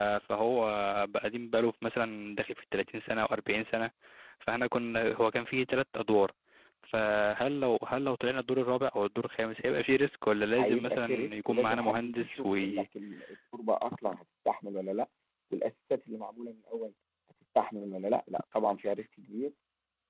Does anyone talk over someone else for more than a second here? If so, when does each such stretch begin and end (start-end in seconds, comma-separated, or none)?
10.6-12.8